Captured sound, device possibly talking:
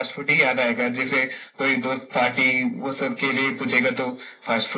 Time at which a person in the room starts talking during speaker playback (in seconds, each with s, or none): none